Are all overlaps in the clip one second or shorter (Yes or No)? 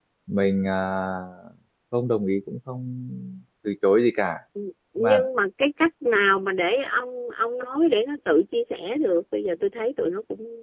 Yes